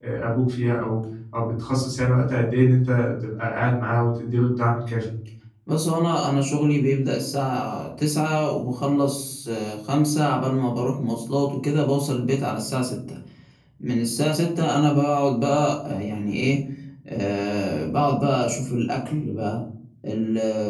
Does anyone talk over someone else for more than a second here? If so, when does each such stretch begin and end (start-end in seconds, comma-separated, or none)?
none